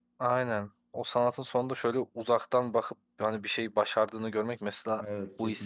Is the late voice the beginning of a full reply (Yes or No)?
No